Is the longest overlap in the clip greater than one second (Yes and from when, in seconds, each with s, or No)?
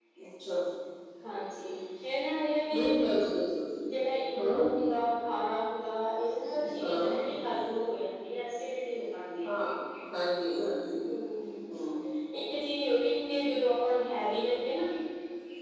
No